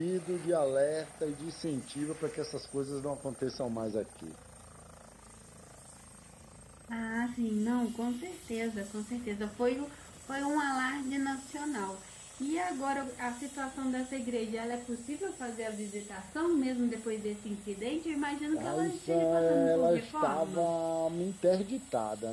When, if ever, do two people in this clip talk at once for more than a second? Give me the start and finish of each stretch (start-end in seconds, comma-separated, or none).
18.5-20.8